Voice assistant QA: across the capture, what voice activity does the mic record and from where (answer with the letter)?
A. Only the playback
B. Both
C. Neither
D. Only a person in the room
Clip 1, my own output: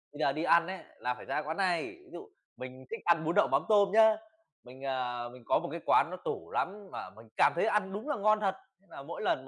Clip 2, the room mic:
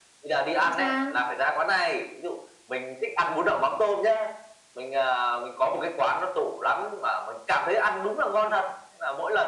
B